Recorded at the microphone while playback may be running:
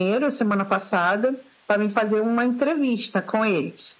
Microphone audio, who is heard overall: echo only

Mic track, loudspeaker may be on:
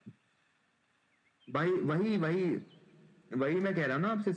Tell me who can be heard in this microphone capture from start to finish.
echo only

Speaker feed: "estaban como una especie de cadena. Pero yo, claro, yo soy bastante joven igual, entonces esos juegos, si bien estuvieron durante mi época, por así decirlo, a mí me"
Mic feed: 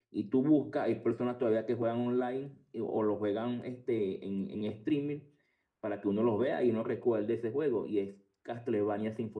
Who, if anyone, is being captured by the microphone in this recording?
user only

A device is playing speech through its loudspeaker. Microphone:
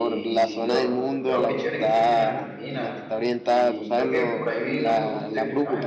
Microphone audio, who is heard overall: both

